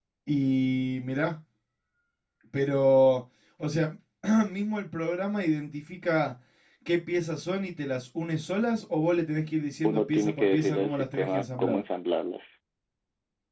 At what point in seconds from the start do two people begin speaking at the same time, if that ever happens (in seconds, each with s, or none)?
9.8 s